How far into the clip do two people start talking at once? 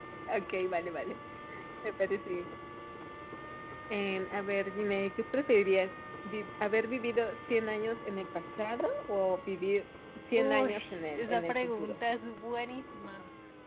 10.4 s

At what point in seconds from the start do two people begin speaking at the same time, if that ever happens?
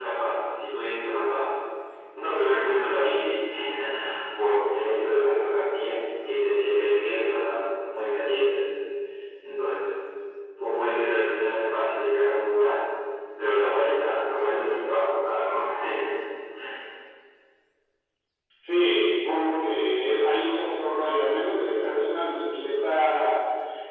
none

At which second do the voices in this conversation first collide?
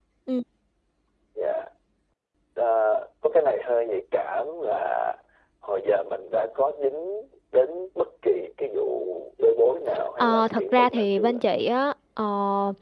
10.2 s

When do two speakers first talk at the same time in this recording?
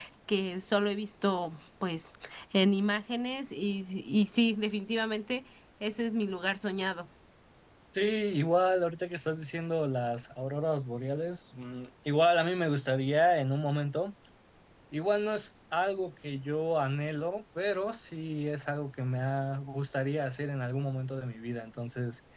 none

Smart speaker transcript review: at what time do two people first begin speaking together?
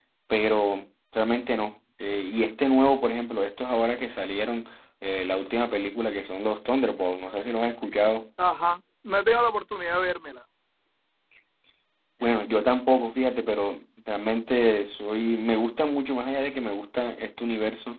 none

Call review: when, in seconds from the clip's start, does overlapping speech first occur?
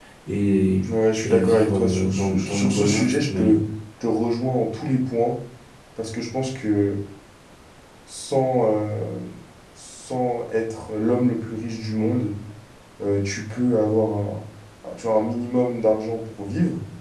1.2 s

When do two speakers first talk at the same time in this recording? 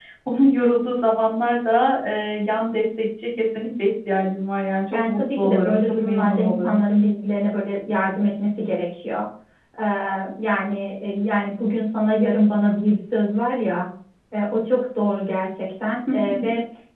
4.9 s

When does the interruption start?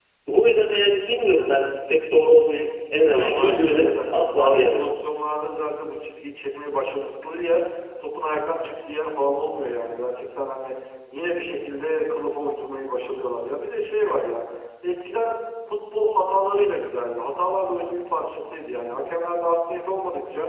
3.0 s

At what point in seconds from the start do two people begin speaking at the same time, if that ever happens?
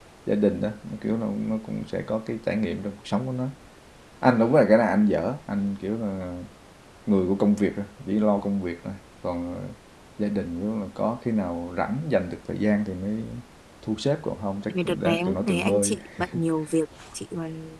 14.7 s

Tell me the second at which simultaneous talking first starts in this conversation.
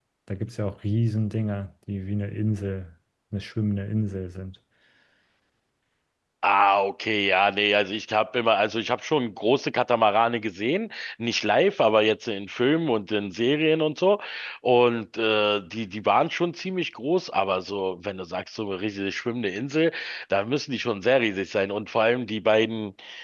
none

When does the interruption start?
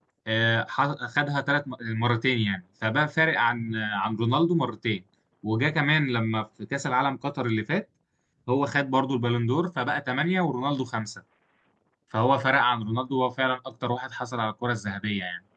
none

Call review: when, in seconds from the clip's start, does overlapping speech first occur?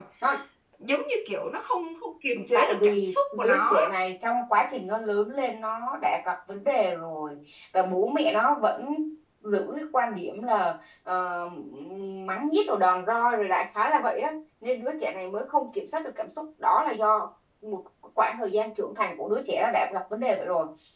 2.5 s

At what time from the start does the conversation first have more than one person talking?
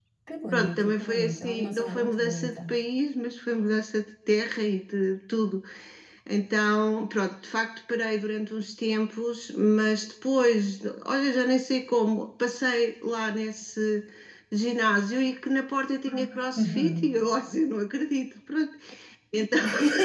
0.5 s

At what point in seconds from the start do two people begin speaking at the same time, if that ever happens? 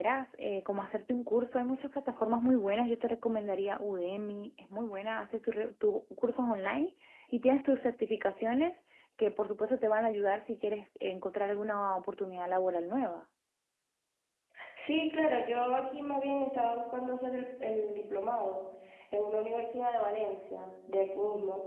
none

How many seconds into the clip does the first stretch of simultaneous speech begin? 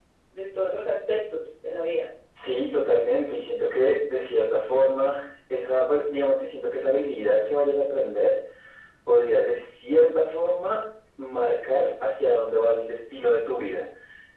none

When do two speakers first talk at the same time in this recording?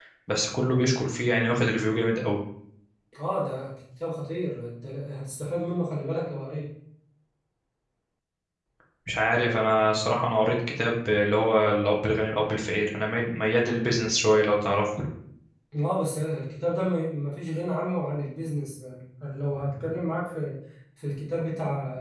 none

